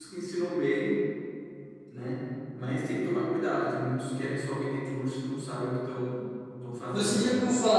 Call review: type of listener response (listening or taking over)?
taking over